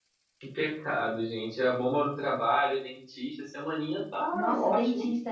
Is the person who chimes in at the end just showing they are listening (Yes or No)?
No